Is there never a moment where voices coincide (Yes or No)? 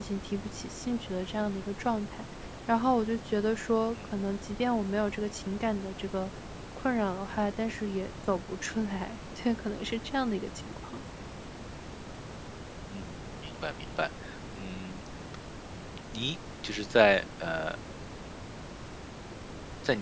Yes